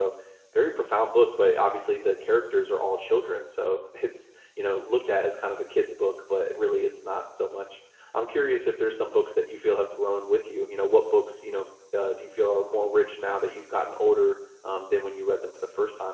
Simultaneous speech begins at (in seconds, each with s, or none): none